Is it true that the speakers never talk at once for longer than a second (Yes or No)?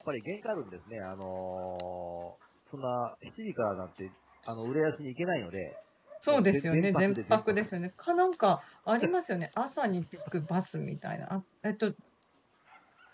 No